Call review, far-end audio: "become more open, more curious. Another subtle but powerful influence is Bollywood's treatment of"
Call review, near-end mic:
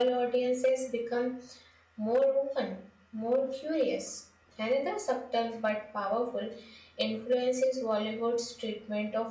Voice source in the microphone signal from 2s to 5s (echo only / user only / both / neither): echo only